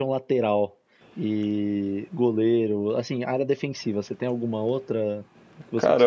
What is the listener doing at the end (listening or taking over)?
taking over